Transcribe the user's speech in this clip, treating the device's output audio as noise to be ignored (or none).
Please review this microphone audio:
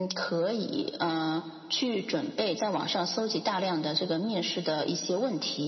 none